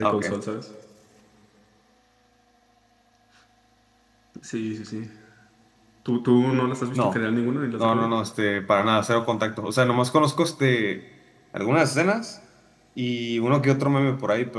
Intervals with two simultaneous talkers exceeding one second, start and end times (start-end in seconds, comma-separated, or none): none